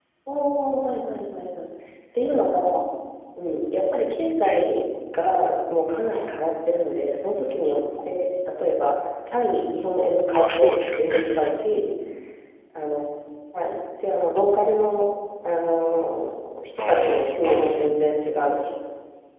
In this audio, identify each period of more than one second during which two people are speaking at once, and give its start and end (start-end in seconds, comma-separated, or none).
10.3-11.5, 16.8-18.1